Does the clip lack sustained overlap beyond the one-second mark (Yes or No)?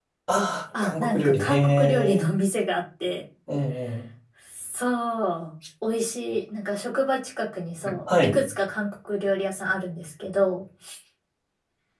No